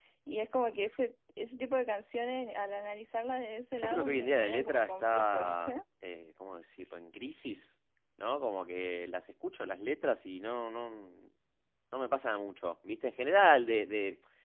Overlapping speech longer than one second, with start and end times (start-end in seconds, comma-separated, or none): 3.8-5.8